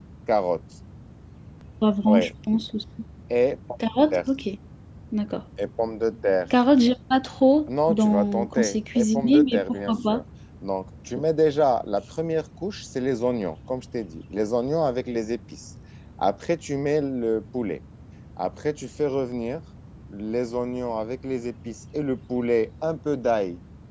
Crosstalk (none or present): present